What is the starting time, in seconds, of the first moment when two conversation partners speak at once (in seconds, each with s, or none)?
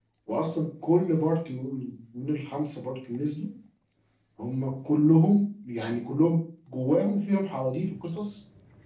none